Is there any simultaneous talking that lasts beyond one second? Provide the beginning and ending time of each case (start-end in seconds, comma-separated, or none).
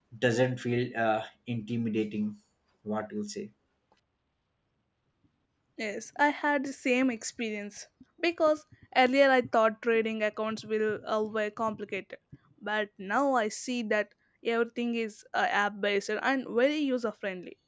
none